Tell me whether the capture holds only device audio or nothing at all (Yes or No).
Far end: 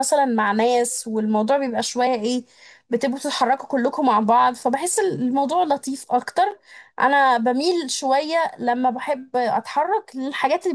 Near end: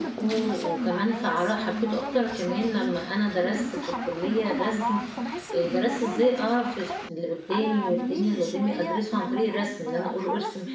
No